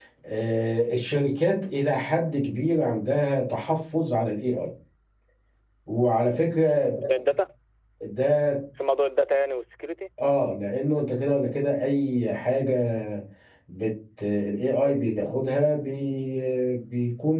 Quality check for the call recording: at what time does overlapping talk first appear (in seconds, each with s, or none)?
none